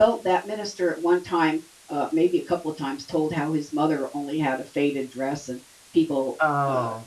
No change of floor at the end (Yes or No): Yes